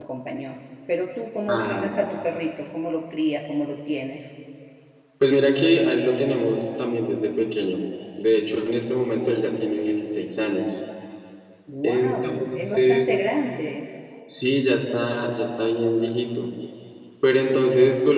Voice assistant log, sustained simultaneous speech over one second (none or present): present